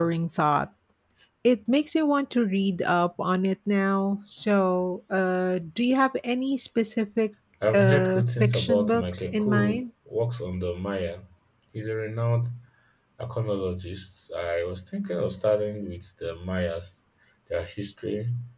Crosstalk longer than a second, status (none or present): present